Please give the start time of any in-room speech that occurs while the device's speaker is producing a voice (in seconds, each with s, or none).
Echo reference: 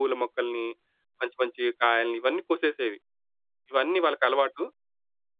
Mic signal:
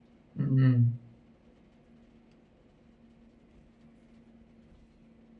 0.4 s